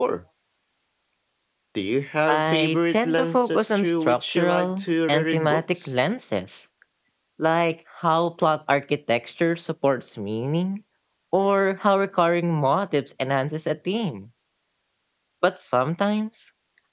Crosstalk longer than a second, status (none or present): present